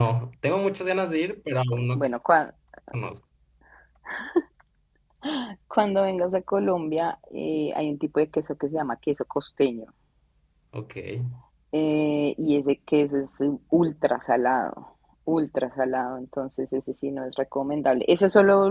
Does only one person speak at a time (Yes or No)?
Yes